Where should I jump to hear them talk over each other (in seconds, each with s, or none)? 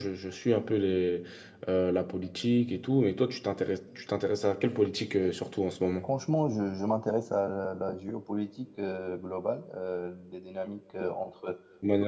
none